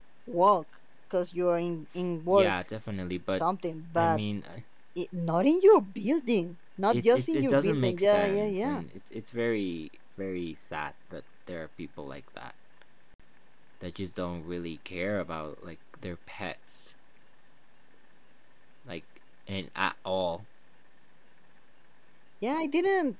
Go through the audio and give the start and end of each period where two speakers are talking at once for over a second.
6.9-8.8

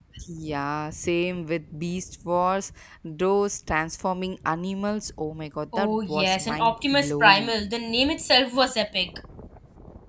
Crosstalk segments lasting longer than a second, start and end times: 5.8-7.5

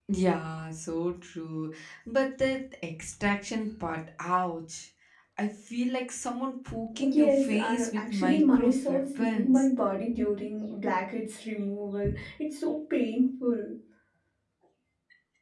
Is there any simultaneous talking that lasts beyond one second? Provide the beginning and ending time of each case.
7.1-9.7

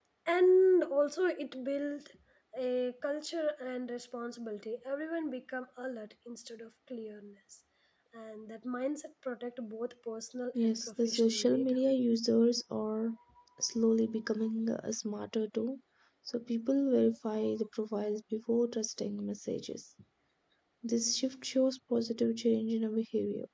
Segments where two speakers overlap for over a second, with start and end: 10.6-11.8

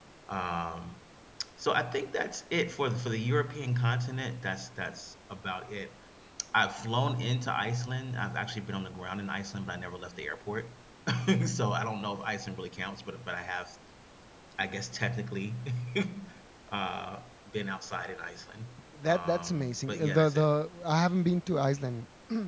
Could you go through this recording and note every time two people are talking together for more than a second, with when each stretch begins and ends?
19.1-20.5

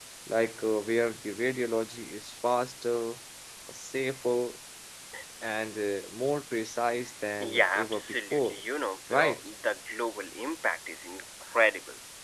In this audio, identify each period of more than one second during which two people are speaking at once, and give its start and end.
7.4-8.6

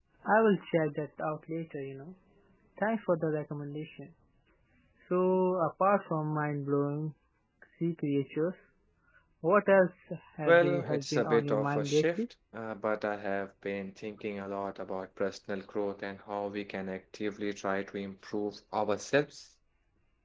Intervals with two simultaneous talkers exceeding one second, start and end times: 10.5-12.2

